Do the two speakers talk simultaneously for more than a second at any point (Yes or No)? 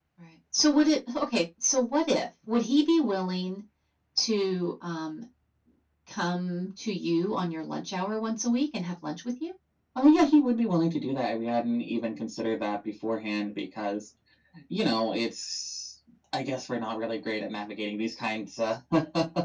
No